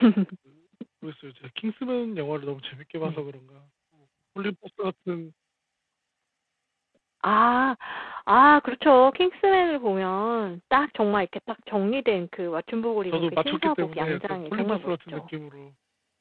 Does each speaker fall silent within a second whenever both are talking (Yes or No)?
No